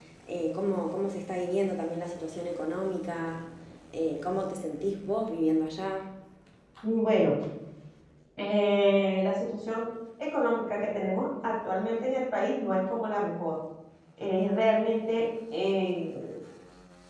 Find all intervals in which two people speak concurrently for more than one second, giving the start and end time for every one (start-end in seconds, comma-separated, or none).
none